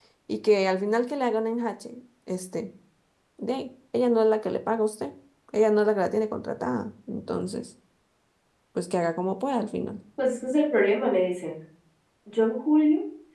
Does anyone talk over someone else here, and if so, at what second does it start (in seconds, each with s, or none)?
none